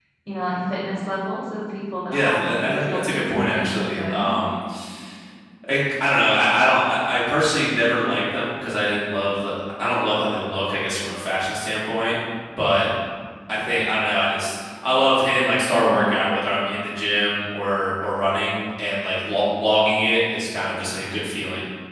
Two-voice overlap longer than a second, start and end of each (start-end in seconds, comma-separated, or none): 2.1-4.4